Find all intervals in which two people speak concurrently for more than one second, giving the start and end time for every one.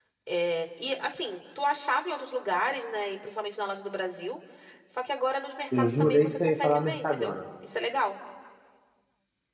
5.8-7.3

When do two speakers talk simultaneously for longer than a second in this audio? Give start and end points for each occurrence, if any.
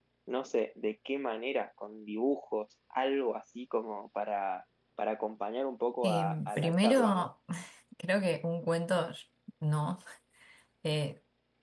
6.0-7.3

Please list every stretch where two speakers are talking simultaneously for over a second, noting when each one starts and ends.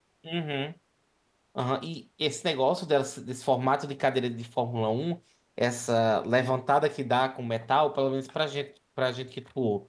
none

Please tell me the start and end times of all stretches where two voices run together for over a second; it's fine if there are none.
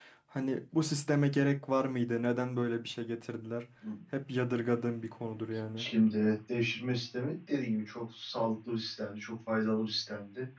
none

